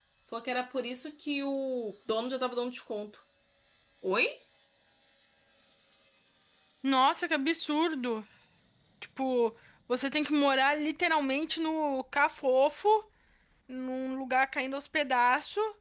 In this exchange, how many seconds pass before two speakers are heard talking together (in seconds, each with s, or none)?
none